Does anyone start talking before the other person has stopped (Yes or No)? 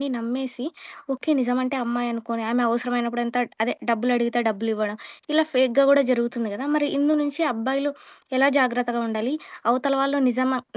No